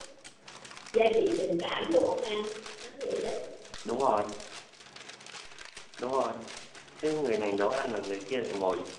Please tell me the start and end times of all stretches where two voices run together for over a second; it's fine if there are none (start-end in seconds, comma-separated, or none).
none